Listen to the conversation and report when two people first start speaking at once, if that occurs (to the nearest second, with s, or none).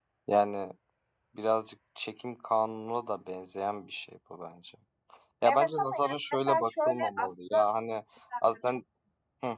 6 s